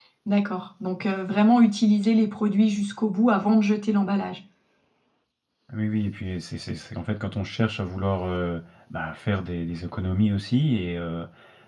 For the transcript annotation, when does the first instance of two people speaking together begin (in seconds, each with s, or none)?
none